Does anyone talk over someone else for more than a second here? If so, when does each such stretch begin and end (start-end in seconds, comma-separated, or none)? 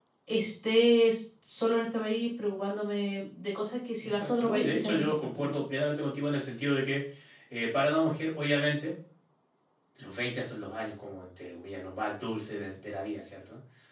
4.0-5.6